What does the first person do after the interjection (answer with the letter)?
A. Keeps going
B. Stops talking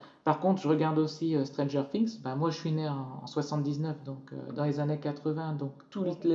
A